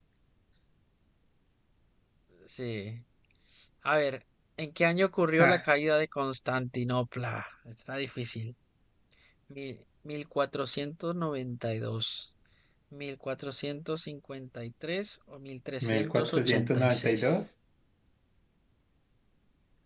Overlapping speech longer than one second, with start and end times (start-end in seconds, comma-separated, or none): 15.8-17.4